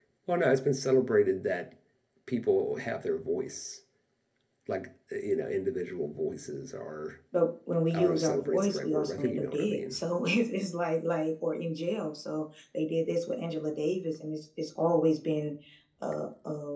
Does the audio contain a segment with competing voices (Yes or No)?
Yes